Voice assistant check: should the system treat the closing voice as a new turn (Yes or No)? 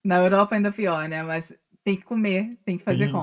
Yes